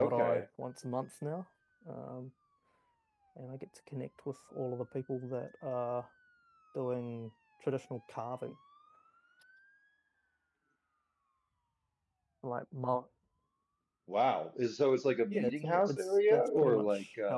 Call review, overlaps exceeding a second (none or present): present